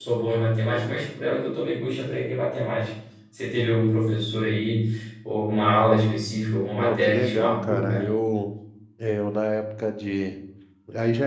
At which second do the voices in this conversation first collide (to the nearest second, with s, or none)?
7 s